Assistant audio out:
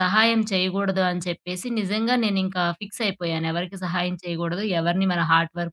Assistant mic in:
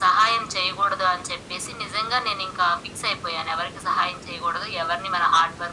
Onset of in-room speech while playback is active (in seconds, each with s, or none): none